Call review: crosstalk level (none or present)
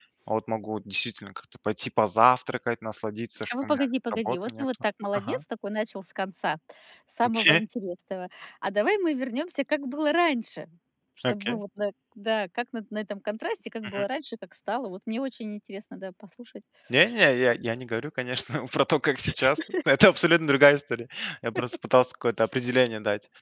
present